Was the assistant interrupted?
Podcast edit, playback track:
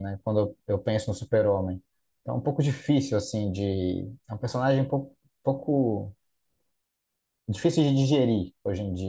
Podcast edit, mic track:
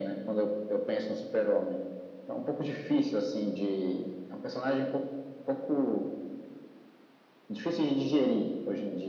No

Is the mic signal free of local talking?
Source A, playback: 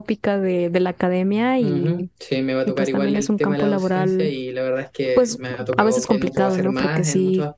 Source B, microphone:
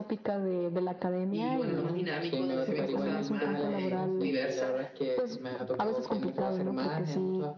No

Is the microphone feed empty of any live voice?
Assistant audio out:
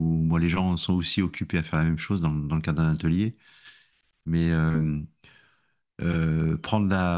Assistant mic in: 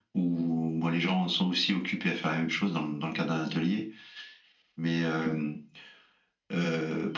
Yes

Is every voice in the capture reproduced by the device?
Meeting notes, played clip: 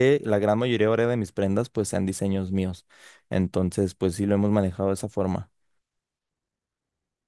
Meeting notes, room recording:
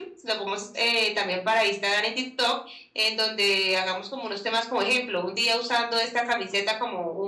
No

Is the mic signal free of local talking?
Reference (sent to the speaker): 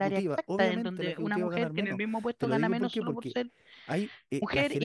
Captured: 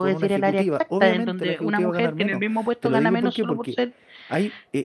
Yes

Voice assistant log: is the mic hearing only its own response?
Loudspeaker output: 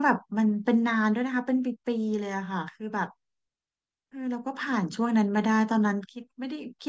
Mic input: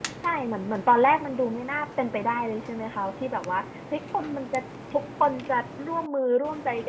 No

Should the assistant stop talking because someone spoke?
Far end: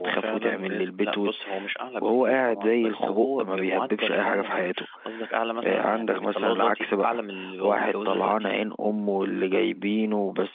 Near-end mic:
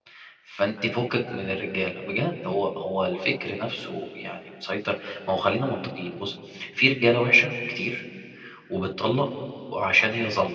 Yes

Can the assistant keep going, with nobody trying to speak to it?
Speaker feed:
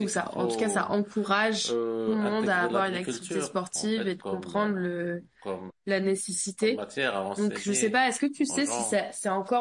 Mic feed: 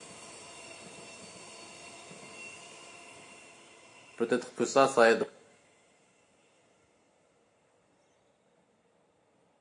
No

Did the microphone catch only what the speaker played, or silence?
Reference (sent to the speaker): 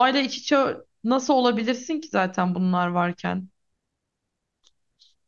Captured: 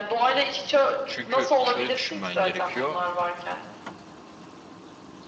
No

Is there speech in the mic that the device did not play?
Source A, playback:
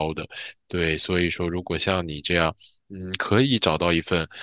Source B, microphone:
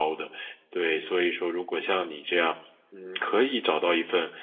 No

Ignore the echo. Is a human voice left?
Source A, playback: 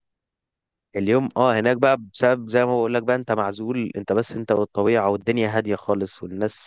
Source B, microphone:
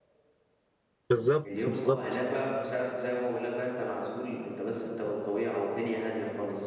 Yes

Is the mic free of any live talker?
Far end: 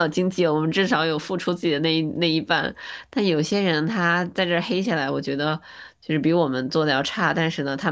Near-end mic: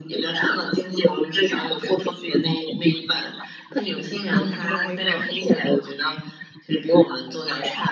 No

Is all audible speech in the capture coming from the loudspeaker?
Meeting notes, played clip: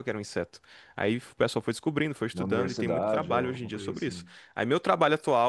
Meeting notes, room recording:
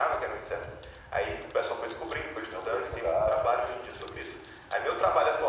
Yes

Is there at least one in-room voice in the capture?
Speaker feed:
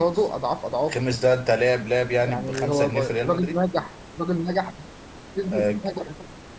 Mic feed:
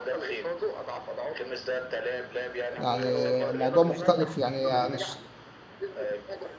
Yes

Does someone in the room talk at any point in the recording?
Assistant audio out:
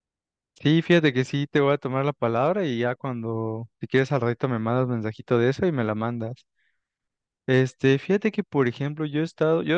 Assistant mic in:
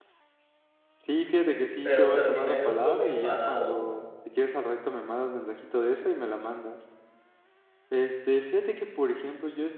Yes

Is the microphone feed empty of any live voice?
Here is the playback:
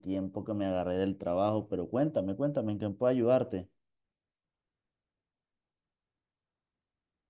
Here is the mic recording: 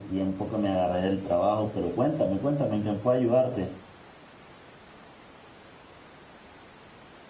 Yes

